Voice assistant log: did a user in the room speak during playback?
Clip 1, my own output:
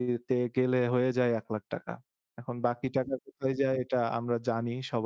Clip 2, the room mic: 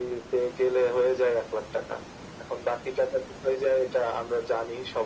No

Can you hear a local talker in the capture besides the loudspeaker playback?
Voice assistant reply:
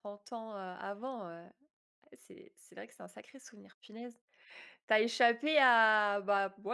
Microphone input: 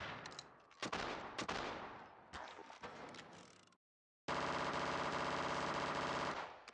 No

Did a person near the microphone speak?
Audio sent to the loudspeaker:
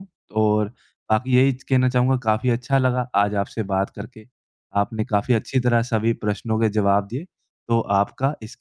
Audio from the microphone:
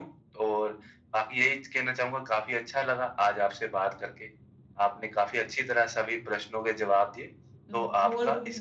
Yes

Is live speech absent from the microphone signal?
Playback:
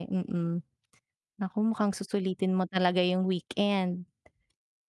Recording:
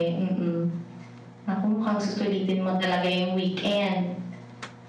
Yes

